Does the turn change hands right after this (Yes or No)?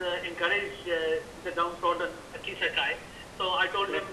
No